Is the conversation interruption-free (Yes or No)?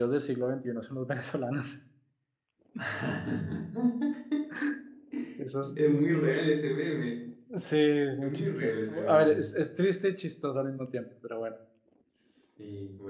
No